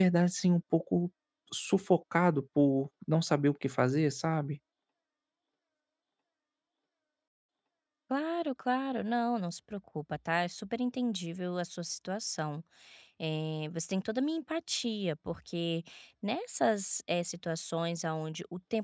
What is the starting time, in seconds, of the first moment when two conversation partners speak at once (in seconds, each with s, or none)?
none